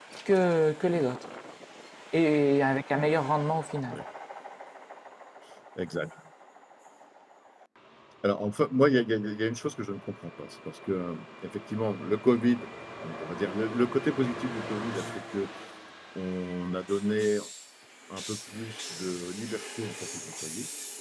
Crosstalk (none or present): none